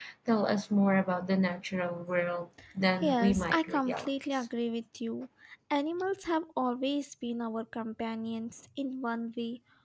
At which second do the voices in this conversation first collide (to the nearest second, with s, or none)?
3 s